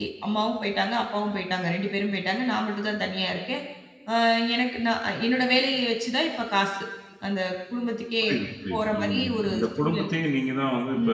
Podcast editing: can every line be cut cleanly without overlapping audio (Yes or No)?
No